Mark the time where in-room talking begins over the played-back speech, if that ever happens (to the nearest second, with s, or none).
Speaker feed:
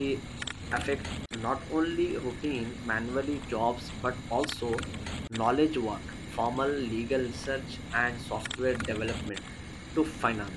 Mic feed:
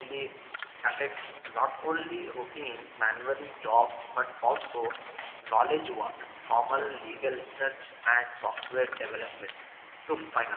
none